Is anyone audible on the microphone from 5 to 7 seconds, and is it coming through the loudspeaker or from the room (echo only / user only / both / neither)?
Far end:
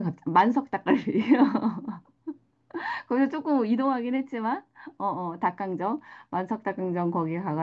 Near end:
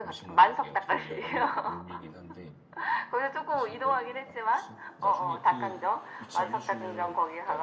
both